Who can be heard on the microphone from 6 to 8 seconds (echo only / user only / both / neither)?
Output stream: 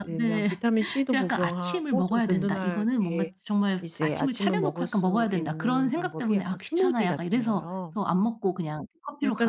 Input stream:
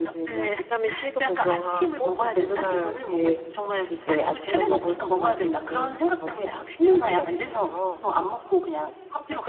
echo only